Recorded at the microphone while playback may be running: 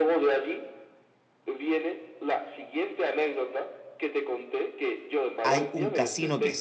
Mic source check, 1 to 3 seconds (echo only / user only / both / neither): echo only